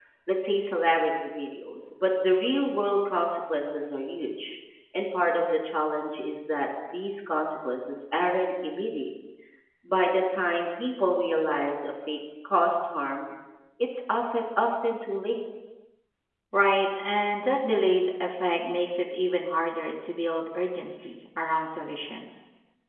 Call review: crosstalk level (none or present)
none